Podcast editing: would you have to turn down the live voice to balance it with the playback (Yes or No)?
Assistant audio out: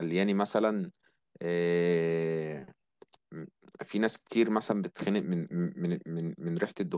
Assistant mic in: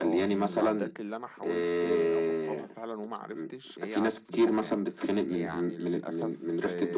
No